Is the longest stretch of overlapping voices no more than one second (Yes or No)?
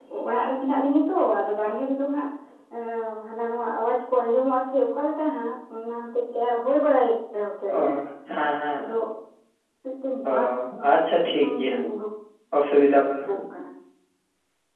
Yes